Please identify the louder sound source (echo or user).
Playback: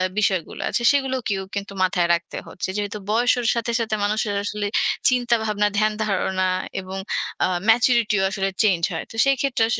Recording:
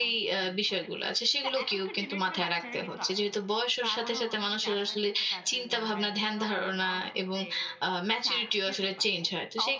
echo